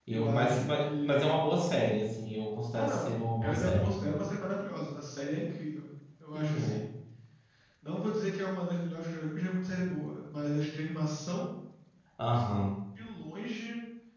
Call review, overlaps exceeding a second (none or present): present